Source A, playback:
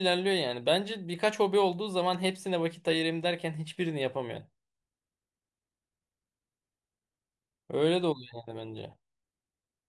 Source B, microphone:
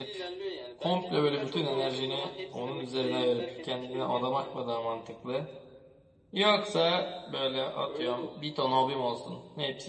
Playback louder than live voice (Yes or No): No